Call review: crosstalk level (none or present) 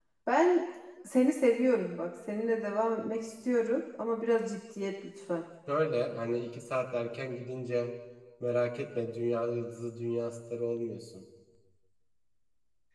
none